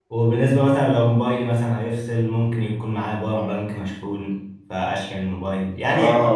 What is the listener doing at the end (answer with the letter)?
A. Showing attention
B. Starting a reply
B